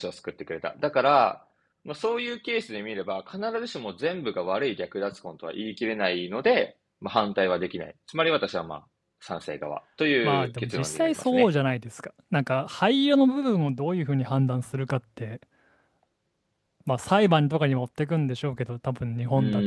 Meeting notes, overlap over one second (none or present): present